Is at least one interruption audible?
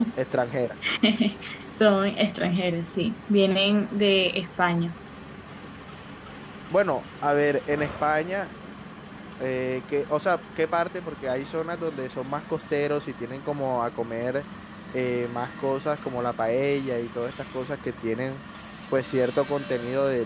No

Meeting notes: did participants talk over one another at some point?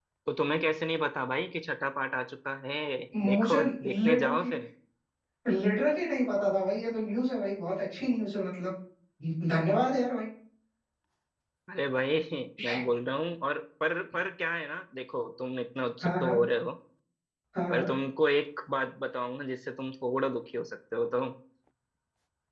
Yes, from 3.3 s

